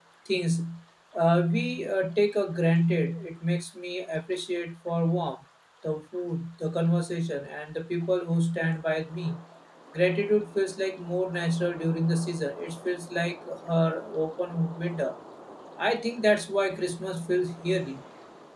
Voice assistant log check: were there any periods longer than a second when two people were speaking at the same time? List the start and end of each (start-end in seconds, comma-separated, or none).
none